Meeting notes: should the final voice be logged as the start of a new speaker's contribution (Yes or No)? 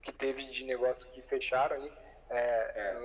No